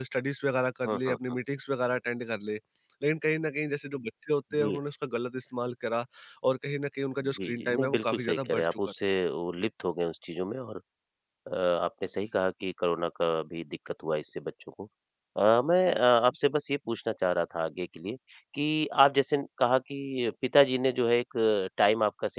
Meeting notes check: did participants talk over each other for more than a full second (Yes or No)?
Yes